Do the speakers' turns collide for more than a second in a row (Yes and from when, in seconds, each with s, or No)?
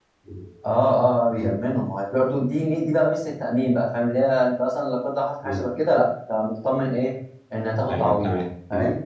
No